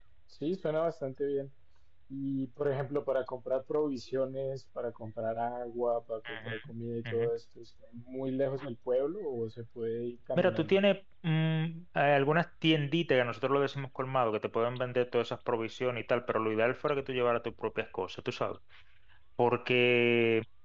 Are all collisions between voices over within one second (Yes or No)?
Yes